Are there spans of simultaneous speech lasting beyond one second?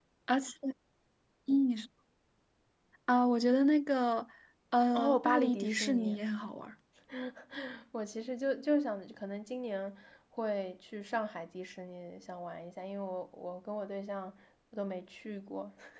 Yes, from 4.9 s

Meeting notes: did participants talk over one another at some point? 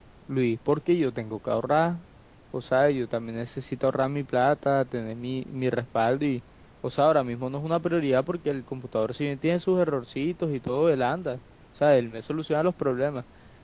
No

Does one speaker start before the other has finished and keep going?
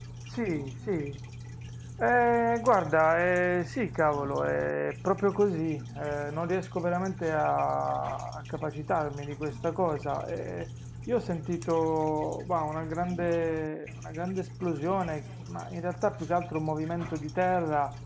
No

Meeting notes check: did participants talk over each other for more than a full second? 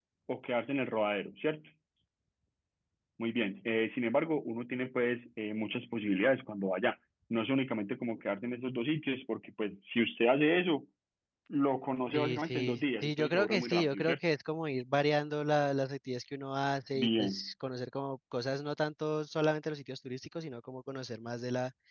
Yes, from 12.1 s

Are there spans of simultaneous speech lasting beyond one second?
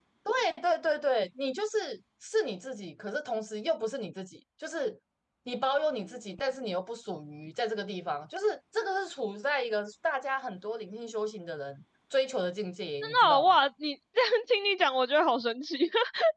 No

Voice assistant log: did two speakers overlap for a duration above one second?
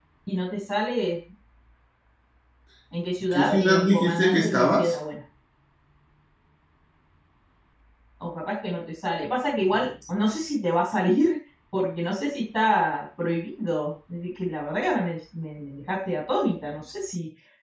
Yes, from 3.3 s

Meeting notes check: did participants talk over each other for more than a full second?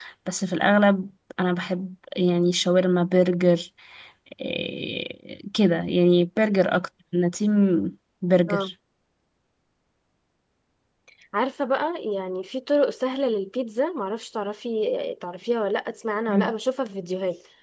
No

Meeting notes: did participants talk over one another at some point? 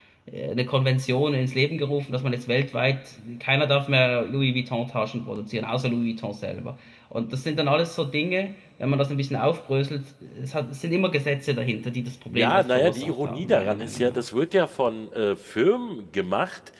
Yes, from 12.3 s

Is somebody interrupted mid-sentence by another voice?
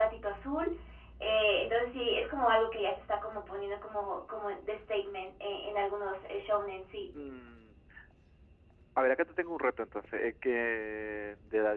No

